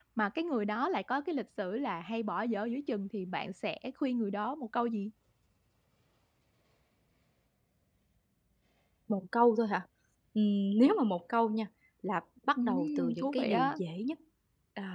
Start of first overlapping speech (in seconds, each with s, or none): 12.6 s